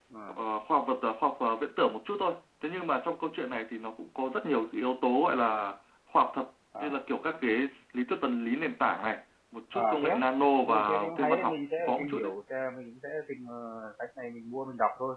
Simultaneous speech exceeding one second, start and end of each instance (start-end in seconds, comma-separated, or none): 10.6-12.3